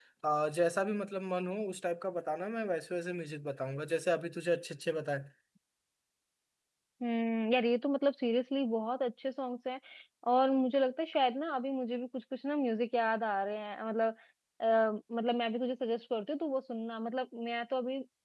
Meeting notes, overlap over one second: none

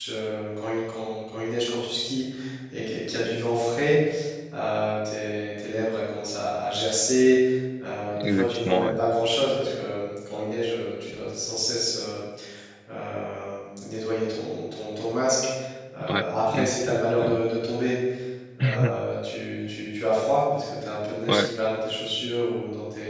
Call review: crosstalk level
present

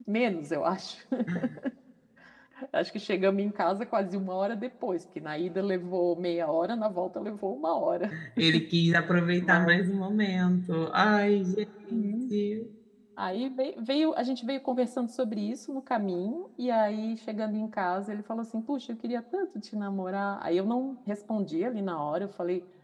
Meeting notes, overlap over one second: none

